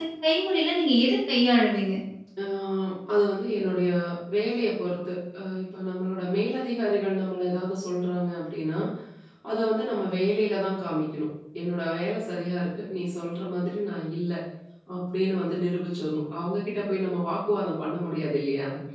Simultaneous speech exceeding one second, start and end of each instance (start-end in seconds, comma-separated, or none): none